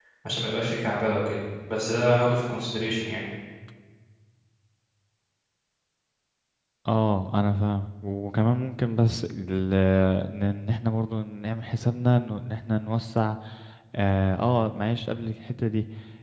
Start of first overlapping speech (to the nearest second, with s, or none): none